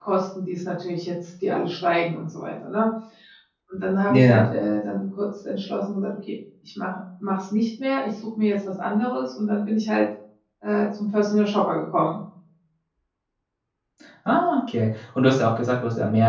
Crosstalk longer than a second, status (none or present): none